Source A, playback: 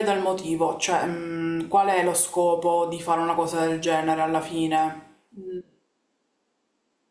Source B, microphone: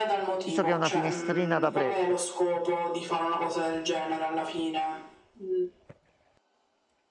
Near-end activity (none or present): present